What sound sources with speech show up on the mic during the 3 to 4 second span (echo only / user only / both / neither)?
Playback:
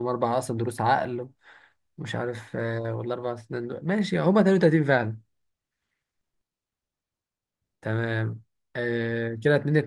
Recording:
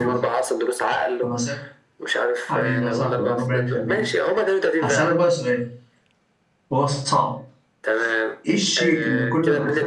both